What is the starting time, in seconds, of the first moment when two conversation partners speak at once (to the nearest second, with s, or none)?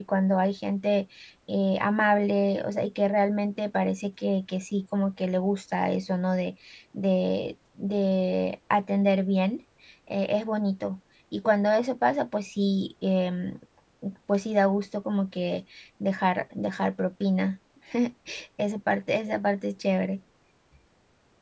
none